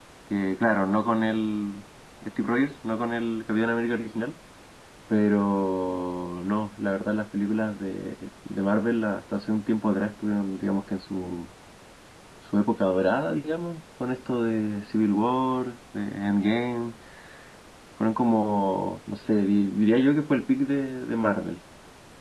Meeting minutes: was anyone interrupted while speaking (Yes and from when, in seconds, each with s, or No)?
No